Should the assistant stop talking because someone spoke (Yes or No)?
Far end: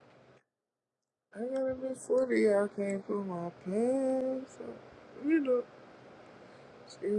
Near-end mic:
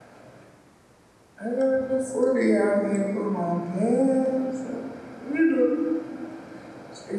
No